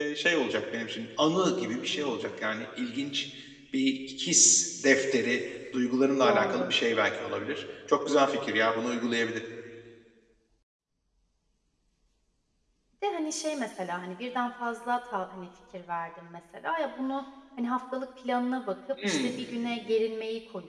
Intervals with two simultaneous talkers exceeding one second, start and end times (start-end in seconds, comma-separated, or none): none